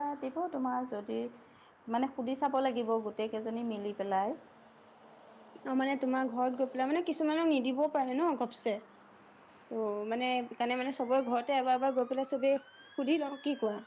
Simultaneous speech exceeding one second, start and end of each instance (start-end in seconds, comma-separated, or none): none